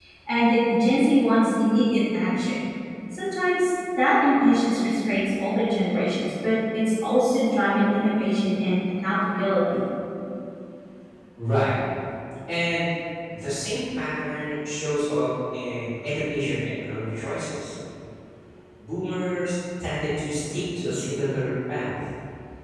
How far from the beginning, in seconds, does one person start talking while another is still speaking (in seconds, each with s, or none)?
none